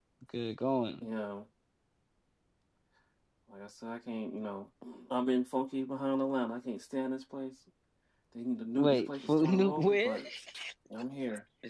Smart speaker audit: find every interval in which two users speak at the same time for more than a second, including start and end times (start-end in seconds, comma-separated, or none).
8.8-10.2